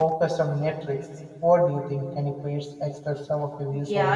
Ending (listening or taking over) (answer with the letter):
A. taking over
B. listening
A